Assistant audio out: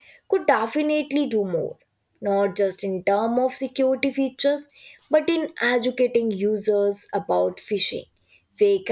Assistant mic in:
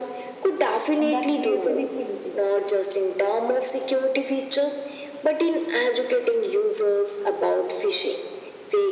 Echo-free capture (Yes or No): No